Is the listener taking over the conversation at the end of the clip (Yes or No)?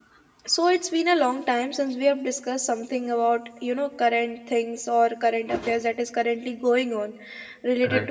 No